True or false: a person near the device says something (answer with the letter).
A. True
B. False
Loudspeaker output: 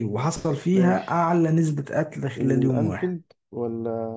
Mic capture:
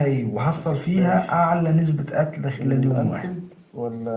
B